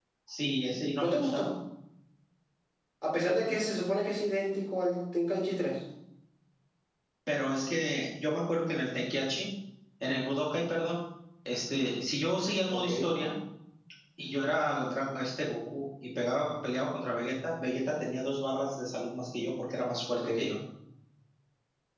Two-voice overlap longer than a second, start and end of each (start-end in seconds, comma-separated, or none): none